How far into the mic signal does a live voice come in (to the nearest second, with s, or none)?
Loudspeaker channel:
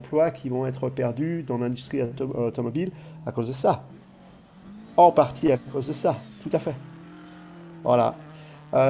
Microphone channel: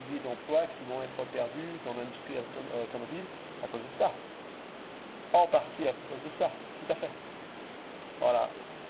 none